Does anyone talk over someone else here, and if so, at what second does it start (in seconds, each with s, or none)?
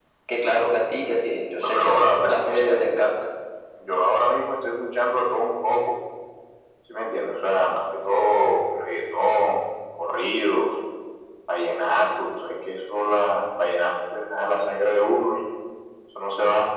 1.6 s